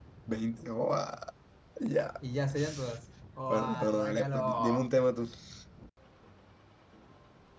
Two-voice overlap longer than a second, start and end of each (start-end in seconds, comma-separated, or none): 3.5-4.9